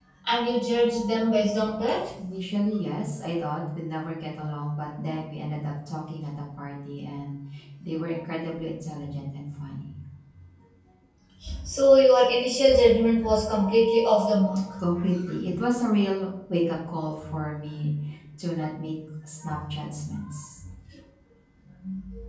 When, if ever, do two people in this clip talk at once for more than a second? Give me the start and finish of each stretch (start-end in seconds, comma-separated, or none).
none